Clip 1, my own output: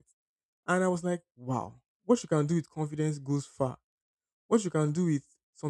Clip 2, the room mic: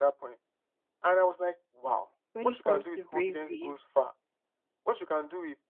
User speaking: Yes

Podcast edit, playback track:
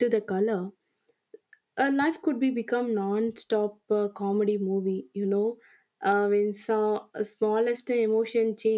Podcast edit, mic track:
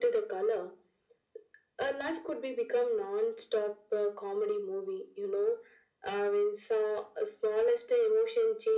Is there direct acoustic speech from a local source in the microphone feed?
No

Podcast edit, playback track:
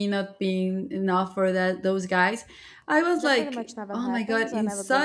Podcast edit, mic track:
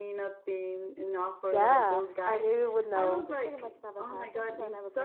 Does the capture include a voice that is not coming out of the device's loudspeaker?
Yes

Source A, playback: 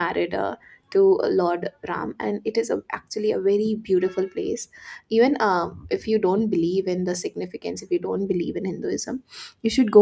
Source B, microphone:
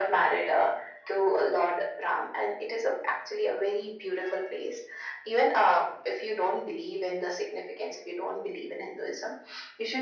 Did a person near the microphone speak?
No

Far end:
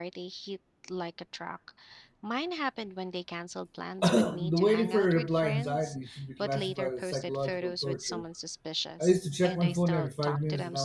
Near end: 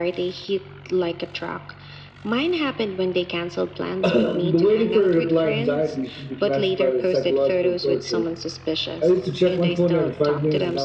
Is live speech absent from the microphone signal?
Yes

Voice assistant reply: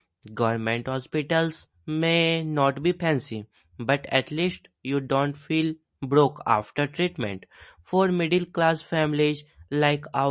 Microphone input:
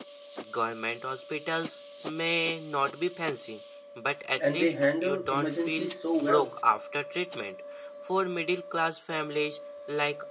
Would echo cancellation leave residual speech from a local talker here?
Yes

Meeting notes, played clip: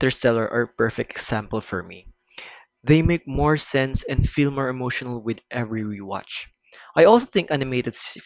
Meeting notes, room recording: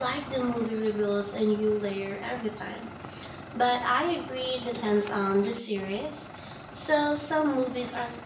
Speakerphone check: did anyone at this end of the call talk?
Yes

